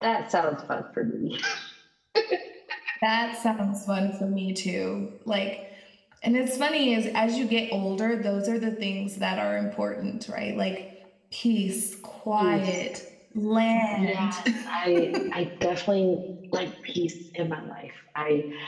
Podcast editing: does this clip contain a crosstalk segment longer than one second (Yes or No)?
No